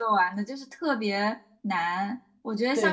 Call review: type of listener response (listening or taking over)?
listening